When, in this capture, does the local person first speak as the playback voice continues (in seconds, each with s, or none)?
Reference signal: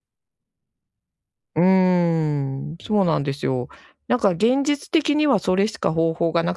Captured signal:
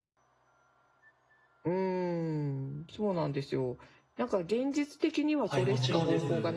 5.4 s